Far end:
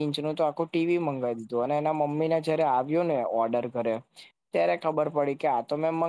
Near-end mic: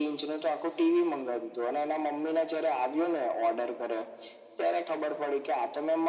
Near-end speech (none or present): none